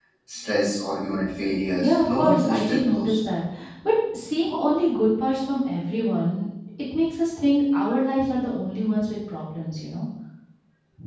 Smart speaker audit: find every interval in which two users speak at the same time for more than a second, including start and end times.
1.8-3.2

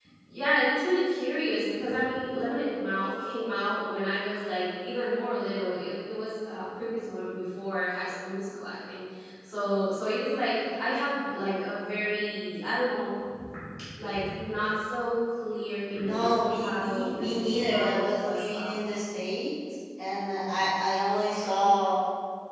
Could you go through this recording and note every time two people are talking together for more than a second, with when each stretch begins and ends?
16.0-18.8

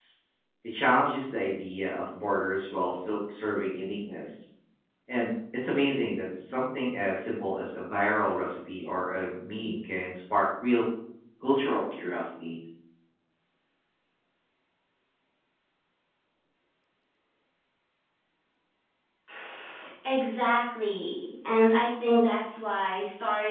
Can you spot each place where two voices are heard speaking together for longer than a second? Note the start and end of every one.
none

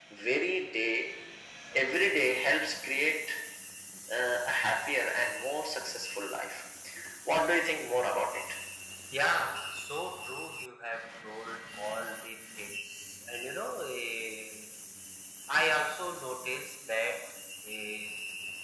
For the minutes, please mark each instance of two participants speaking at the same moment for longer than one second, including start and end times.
none

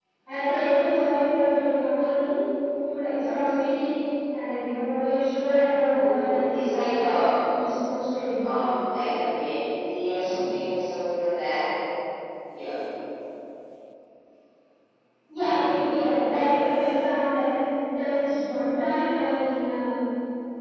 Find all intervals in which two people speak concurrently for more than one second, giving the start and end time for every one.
5.9-7.2

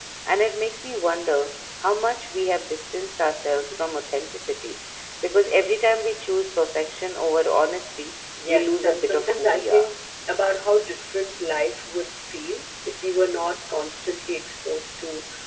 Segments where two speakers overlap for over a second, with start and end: 8.5-9.8

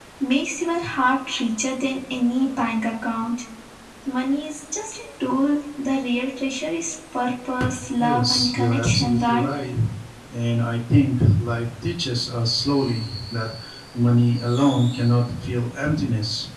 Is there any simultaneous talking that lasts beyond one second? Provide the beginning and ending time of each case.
8.0-9.5

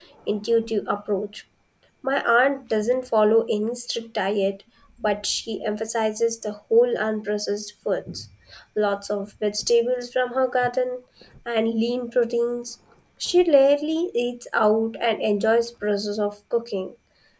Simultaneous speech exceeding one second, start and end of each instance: none

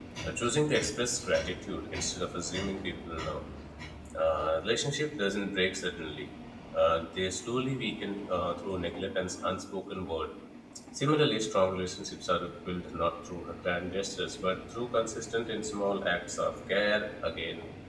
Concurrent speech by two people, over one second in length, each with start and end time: none

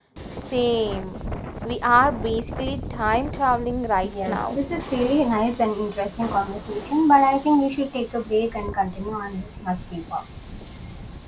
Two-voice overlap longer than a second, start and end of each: none

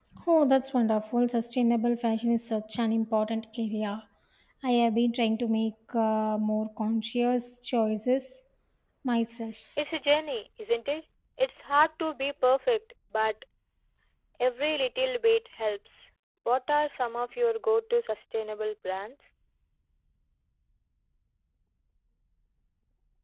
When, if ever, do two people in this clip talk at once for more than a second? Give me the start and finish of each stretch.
none

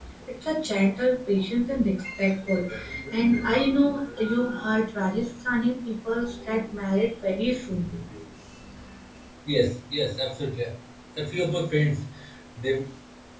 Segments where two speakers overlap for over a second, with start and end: none

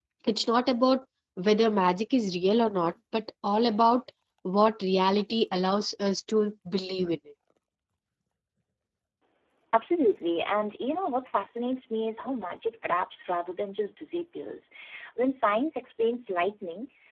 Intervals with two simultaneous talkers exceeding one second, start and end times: none

